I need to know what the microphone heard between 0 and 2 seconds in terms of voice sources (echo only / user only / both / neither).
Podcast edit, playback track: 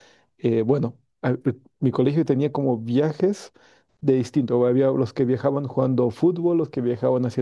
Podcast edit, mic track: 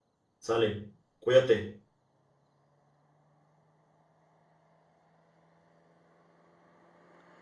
user only